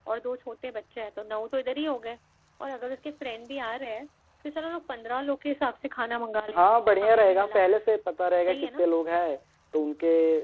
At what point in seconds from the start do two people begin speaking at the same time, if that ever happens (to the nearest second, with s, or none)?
7 s